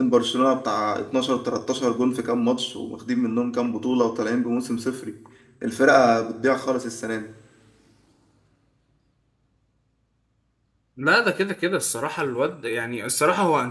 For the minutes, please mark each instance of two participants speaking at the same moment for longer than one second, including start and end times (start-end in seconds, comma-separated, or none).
none